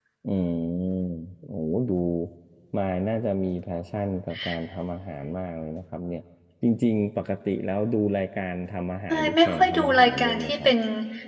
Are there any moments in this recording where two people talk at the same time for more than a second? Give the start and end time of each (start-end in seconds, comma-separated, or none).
9.1-10.7